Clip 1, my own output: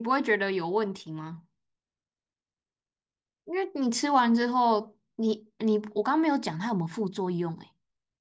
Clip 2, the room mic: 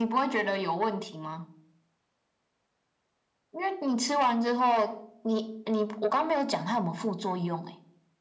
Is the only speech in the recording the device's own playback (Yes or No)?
Yes